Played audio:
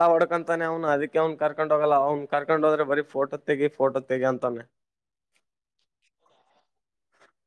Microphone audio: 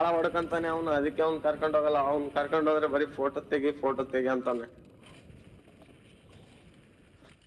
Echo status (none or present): present